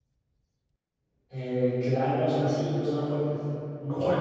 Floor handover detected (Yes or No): Yes